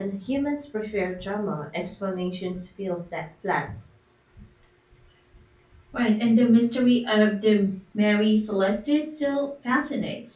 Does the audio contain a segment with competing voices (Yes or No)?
No